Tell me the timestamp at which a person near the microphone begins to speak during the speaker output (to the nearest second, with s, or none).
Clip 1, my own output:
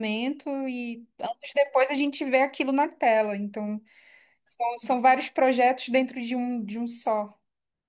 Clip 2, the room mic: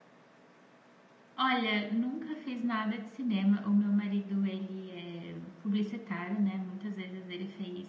1 s